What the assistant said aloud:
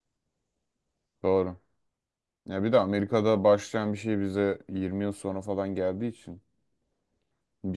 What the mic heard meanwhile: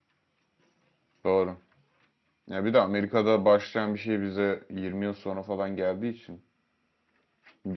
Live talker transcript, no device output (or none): none